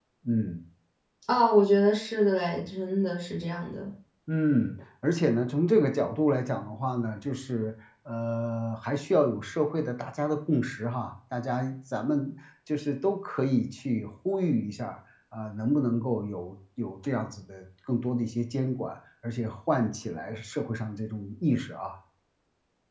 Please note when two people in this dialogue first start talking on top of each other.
none

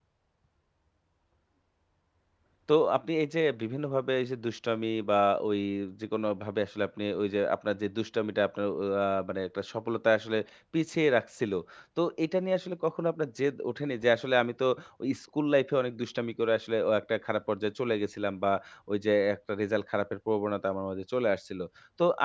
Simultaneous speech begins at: none

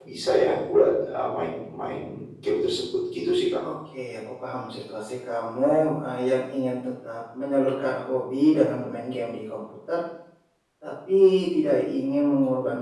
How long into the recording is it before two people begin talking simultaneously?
none

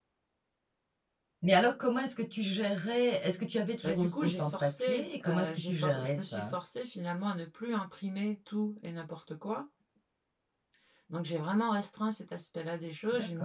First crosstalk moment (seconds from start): 3.8 s

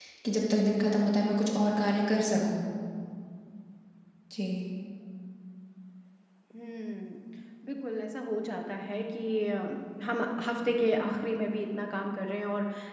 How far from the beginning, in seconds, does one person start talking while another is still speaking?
none

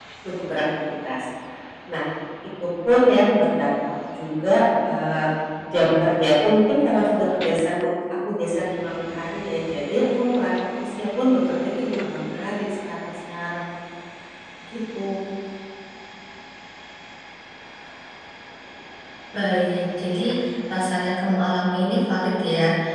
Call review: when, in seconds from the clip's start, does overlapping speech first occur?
none

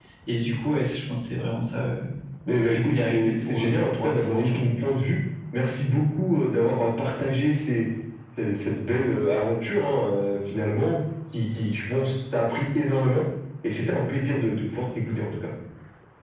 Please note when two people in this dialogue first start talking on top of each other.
2.7 s

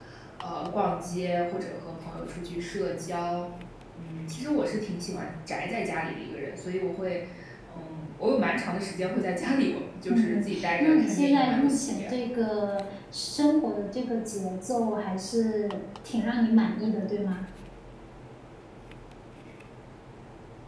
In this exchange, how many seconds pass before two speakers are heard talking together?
10.1 s

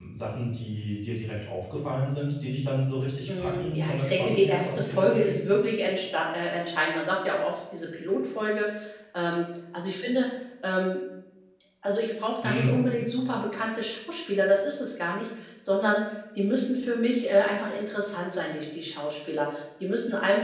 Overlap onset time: 3.4 s

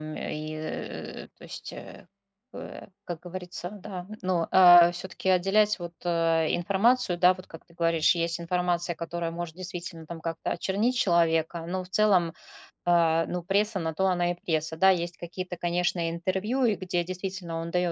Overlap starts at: none

